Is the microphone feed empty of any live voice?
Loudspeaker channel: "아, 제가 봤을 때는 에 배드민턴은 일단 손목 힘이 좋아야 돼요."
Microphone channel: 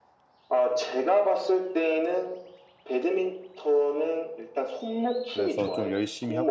No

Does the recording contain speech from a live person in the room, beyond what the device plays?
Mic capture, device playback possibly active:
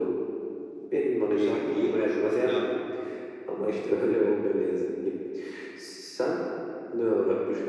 Yes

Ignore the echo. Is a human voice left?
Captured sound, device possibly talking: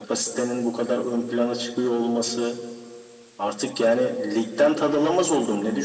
No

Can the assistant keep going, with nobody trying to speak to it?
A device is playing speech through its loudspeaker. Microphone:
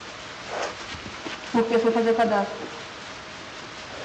No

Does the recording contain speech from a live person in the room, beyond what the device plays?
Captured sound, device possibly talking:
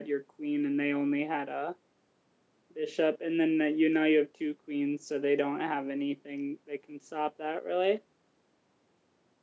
Yes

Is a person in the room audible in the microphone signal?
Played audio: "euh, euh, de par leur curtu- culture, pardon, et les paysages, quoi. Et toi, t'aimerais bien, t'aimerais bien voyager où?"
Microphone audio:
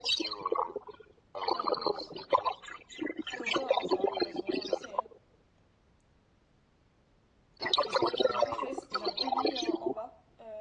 Yes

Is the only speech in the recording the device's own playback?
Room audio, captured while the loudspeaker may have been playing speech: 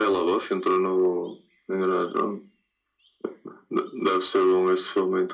Yes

